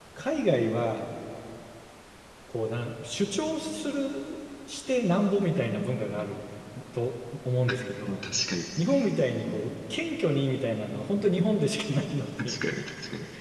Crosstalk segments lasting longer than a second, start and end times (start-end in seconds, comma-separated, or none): none